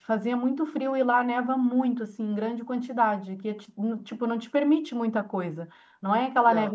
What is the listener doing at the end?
listening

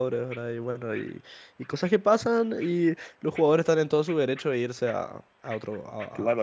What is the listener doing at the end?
taking over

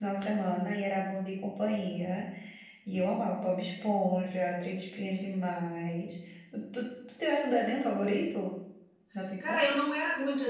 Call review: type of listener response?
taking over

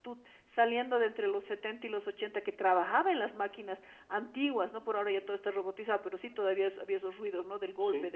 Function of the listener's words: listening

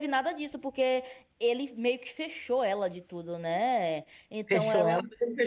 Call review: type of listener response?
taking over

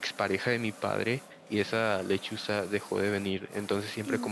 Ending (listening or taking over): listening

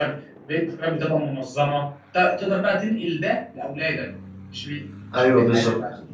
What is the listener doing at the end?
taking over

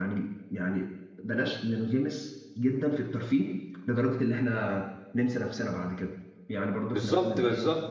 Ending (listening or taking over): taking over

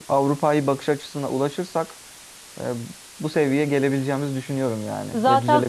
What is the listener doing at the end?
taking over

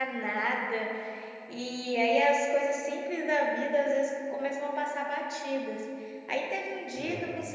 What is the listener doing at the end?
listening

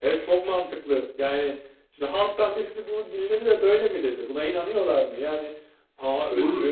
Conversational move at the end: listening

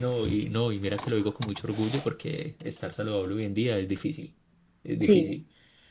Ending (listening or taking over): listening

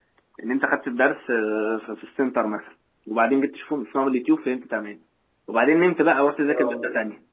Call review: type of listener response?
listening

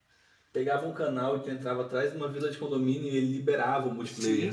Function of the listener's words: taking over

